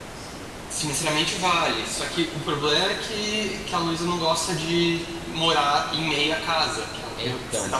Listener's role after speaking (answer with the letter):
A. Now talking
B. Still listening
B